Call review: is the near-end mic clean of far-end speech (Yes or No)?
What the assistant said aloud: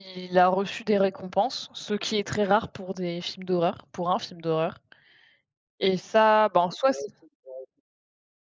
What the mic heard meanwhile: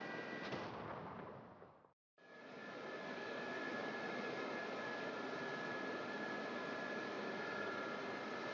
Yes